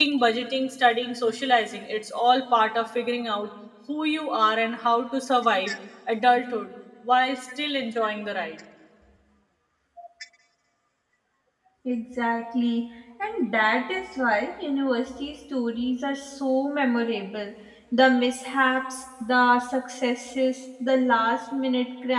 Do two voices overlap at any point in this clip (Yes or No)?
No